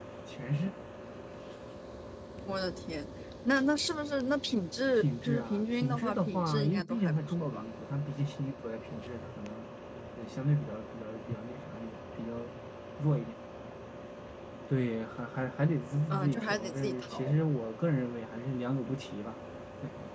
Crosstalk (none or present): present